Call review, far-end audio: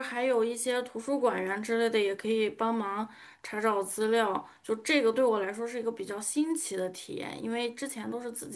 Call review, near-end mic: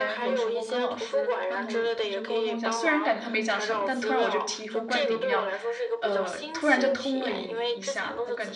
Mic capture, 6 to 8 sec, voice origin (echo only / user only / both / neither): both